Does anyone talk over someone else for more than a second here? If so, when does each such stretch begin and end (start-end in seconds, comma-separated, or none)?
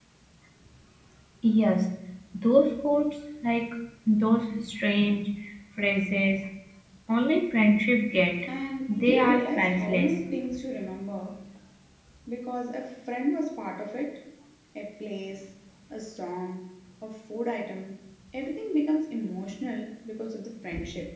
8.9-10.1